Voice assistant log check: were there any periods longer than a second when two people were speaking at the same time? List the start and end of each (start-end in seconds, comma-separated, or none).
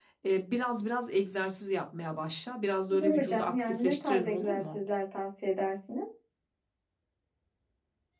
2.9-4.8